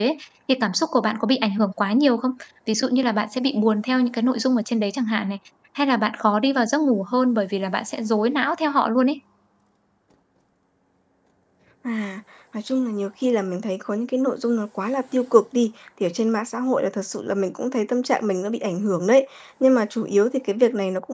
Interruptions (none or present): none